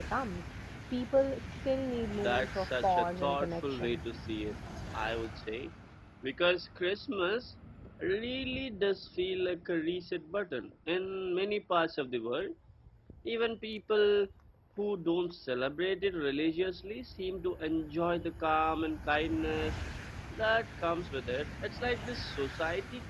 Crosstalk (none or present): present